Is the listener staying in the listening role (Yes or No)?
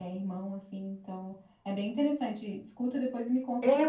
No